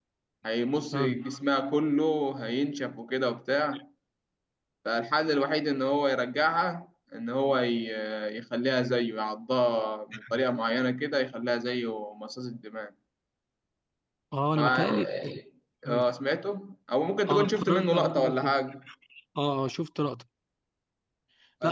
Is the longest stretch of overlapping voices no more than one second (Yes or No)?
No